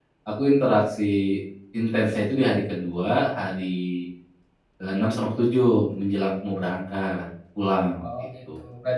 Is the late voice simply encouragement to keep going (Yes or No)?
No